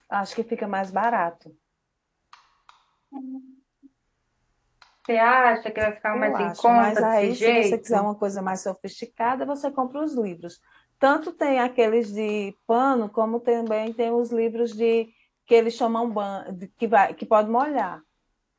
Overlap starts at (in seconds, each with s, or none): 6.1 s